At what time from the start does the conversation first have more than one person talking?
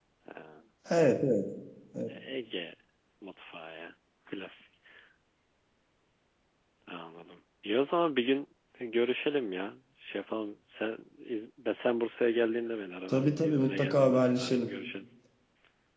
13.1 s

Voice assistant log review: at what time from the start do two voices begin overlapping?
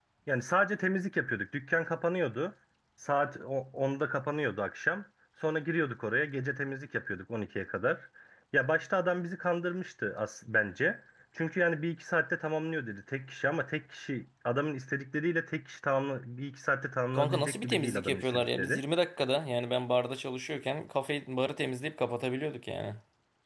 17.1 s

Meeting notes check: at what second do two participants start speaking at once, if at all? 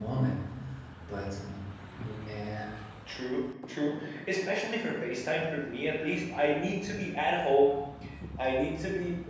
none

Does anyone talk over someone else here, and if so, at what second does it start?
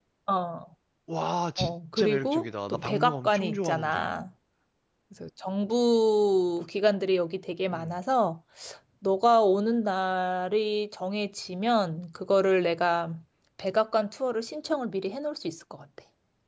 1.6 s

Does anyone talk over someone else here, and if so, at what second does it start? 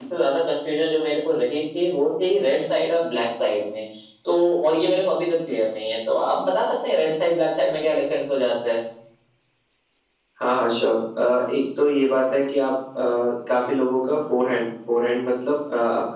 none

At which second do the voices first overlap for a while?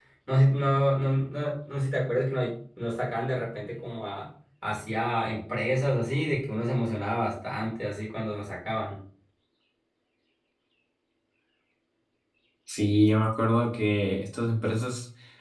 none

